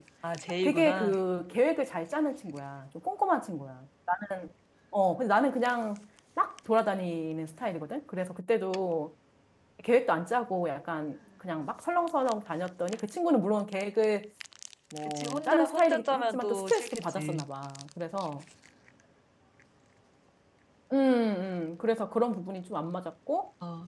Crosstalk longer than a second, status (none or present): present